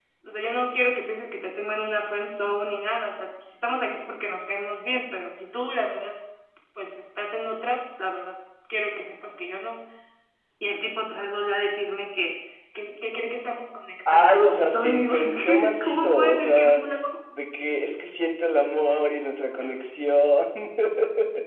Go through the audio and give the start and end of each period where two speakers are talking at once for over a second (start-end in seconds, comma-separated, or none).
14.1-16.8